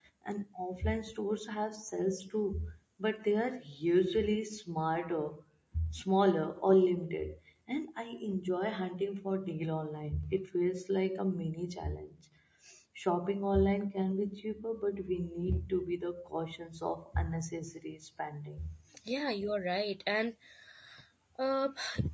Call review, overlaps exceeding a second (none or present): none